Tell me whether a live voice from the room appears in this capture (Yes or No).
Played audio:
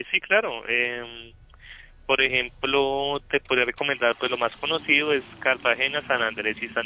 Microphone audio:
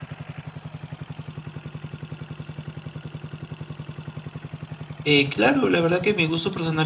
Yes